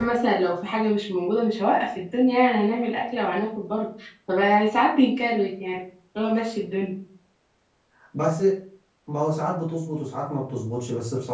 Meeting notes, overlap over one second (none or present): none